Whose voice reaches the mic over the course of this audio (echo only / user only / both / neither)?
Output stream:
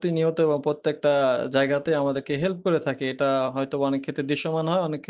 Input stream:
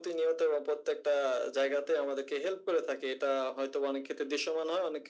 echo only